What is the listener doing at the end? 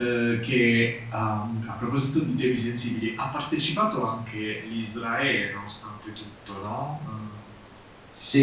taking over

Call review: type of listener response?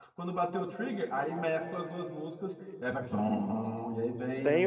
taking over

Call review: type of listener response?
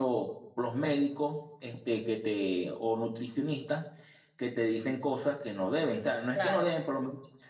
listening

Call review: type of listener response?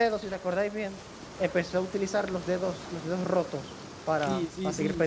taking over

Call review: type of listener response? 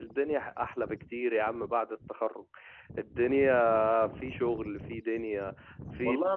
taking over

